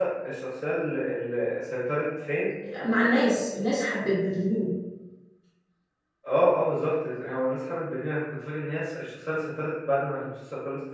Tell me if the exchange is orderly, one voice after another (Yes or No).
Yes